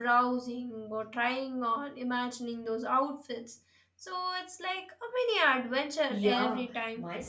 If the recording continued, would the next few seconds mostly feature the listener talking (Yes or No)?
Yes